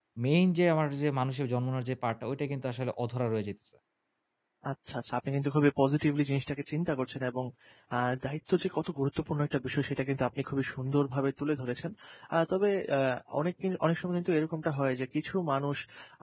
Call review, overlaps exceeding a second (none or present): none